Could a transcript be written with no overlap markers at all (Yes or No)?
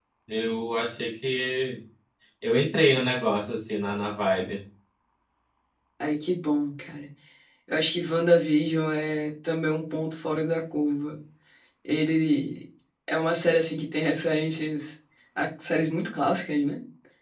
Yes